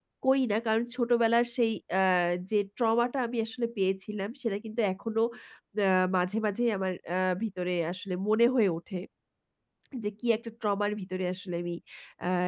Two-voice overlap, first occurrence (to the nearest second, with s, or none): none